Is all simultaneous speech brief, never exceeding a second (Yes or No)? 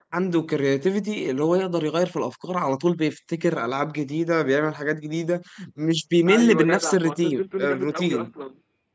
No